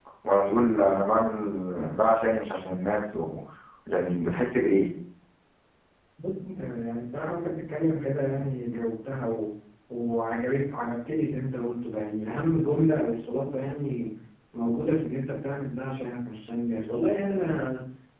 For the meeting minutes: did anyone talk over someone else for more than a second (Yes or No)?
No